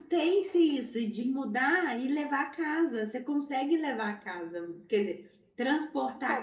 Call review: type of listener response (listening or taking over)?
taking over